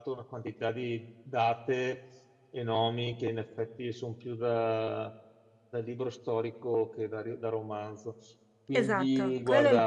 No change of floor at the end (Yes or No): No